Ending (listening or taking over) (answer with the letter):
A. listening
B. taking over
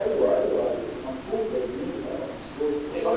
B